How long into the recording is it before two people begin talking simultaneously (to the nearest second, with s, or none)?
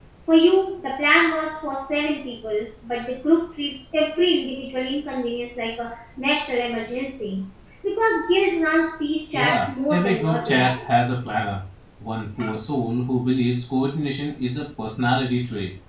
9 s